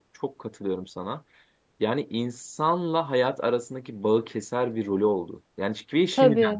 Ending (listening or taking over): listening